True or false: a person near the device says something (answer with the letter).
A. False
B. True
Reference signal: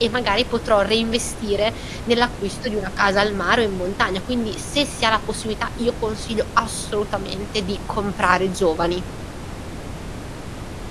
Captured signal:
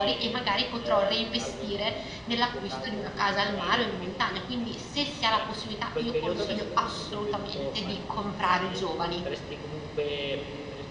B